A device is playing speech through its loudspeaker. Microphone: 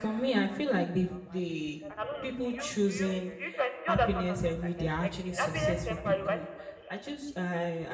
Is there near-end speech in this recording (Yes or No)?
Yes